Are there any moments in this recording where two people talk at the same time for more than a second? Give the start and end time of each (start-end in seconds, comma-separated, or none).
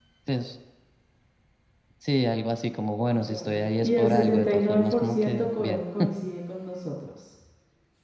3.3-5.8